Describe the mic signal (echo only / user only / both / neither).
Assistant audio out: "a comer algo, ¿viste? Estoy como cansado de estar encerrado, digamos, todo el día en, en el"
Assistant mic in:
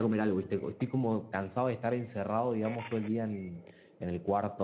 echo only